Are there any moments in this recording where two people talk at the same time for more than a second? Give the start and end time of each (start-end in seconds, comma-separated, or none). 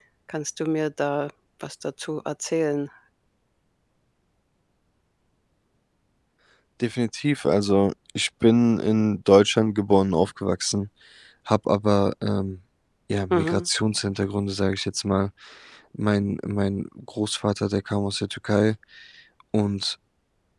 none